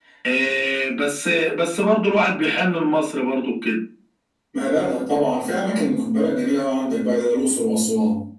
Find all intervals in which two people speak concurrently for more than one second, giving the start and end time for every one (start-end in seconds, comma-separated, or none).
none